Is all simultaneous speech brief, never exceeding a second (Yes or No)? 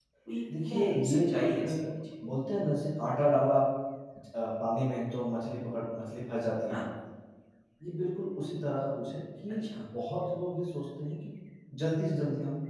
No